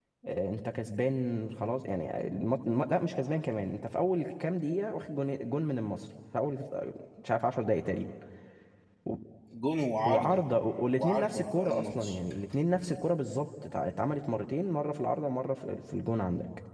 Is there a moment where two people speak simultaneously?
Yes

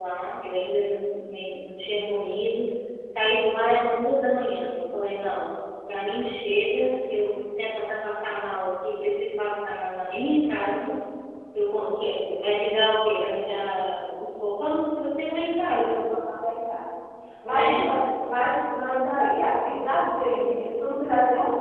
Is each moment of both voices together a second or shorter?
Yes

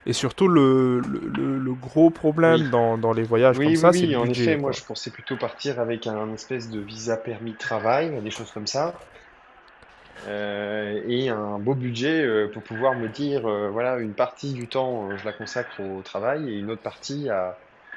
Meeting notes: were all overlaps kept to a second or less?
No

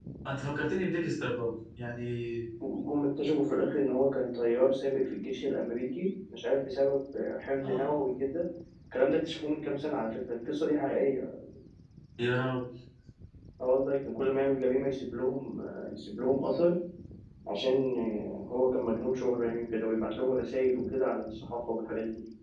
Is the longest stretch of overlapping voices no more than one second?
Yes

